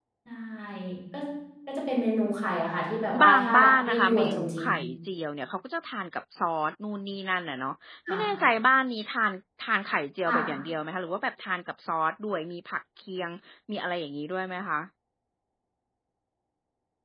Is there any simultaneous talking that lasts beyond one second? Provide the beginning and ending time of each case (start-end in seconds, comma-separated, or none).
3.3-4.8